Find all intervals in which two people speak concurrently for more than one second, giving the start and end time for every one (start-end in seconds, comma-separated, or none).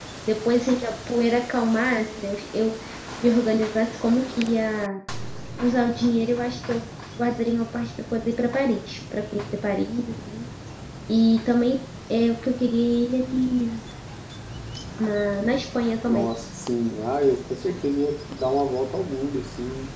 none